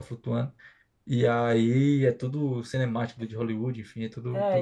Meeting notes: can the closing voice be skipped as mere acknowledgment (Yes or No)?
No